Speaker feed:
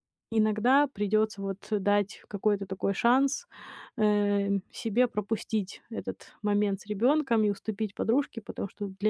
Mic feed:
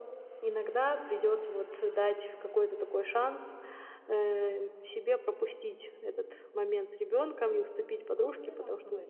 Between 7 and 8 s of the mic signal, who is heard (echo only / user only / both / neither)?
echo only